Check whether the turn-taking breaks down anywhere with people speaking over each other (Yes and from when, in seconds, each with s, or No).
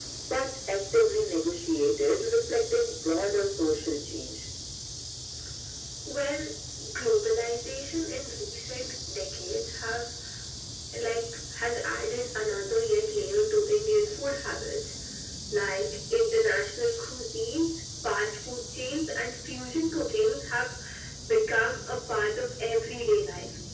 No